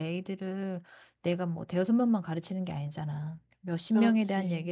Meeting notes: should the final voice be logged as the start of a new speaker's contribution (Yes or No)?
No